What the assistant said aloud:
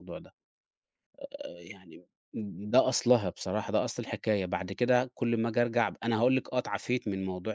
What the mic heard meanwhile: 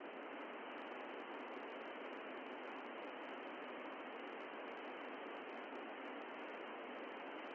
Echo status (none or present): none